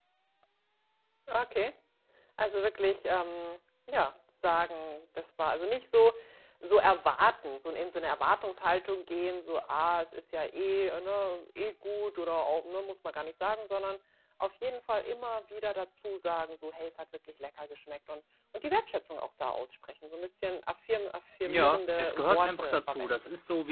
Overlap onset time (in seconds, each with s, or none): 21.4 s